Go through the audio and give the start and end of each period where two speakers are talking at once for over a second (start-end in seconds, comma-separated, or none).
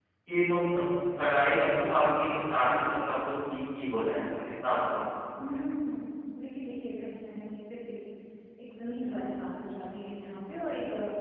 none